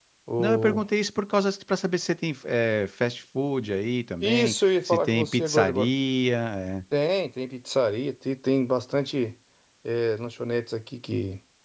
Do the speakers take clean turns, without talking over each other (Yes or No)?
No